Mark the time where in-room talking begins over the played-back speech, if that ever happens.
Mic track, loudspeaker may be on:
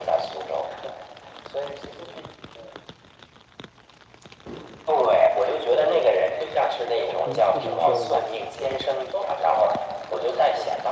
7.2 s

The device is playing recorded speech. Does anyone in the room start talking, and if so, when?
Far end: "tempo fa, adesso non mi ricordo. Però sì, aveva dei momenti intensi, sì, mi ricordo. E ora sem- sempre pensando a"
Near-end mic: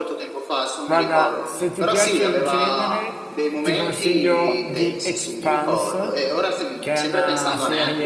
0.8 s

